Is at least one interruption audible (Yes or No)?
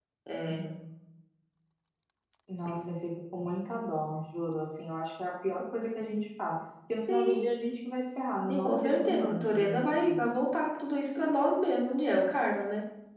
Yes